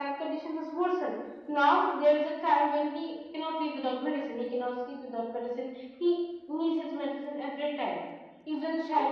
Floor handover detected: No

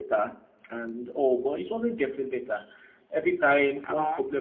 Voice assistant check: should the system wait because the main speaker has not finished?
Yes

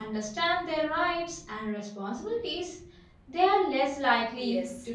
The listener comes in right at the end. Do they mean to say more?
Yes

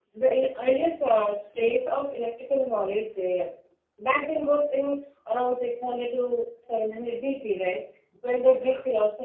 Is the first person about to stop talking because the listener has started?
No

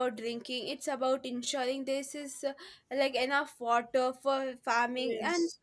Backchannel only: Yes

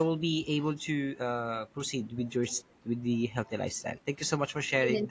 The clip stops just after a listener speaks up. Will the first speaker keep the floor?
No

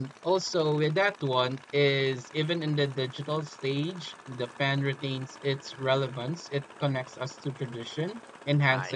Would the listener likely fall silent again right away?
Yes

